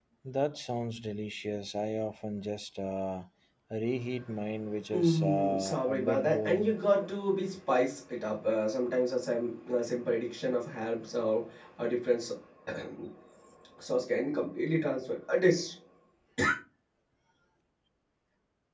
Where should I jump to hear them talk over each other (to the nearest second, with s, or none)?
5 s